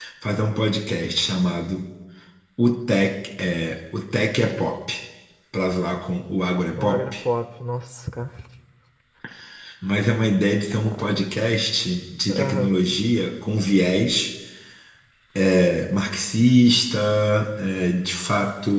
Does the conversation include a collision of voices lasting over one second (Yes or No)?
No